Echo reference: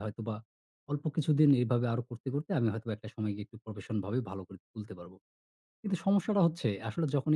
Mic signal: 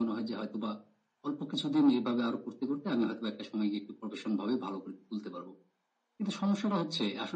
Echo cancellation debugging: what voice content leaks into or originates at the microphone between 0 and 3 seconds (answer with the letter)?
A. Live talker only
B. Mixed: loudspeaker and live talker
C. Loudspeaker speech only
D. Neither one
C